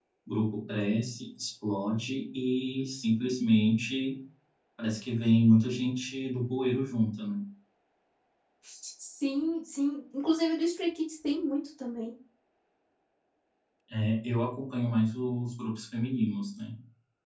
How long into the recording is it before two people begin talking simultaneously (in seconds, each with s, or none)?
none